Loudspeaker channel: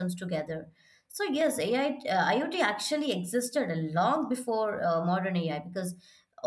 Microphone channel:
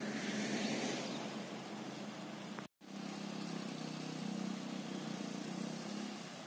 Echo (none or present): none